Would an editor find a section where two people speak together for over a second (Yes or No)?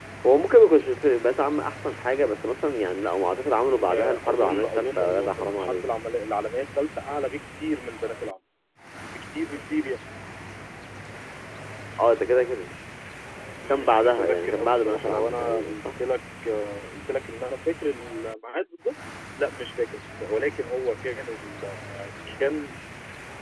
Yes